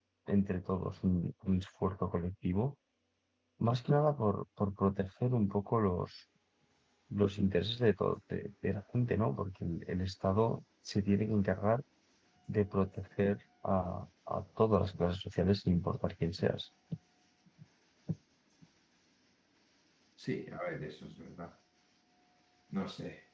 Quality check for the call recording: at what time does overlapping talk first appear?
none

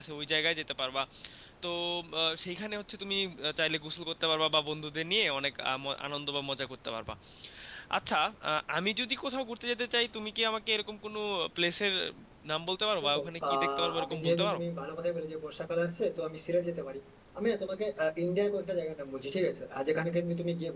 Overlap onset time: 13 s

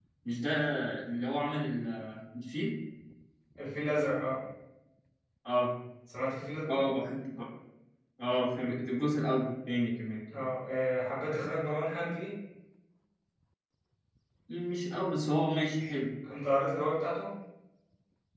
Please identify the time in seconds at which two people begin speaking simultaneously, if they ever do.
none

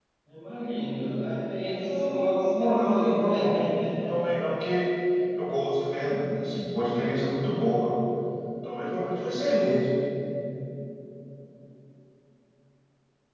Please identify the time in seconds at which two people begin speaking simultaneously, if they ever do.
2 s

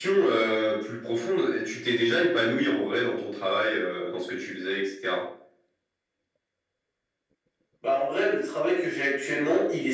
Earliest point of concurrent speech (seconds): none

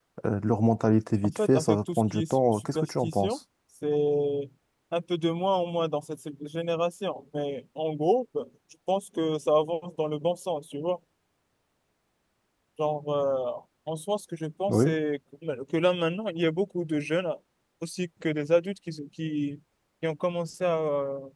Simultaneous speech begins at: 1 s

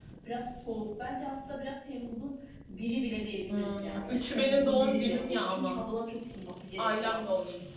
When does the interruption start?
3 s

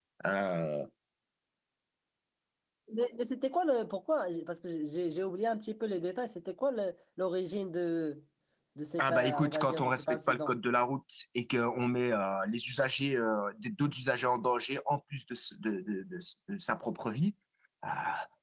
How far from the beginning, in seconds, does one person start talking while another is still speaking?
9 s

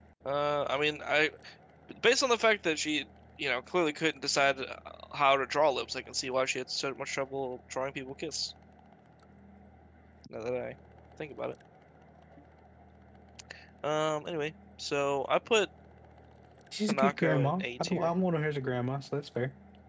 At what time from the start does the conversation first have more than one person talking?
17 s

